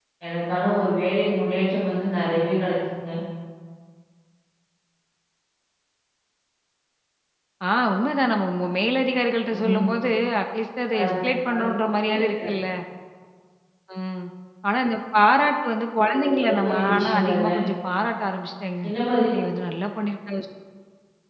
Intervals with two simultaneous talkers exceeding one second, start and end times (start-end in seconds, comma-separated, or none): 16.1-17.5